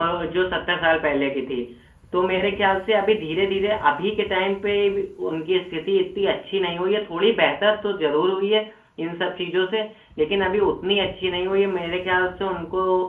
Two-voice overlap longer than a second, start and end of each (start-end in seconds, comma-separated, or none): none